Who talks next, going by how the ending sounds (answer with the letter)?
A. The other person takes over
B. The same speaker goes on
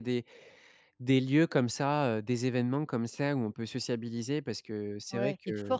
A